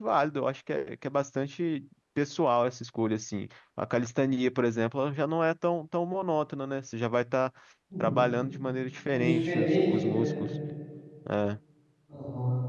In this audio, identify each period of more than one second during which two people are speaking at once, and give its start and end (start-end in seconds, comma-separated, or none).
9.1-10.4